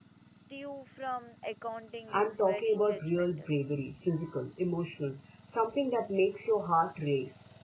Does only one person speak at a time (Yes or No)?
No